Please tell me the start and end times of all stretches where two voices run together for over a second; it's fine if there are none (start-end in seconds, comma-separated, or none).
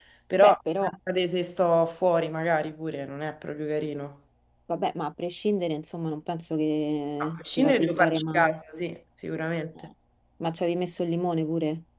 7.2-8.6